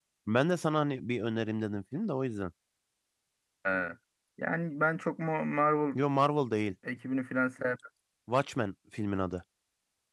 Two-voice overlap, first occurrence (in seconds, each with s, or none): none